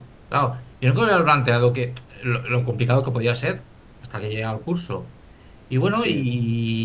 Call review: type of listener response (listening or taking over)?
listening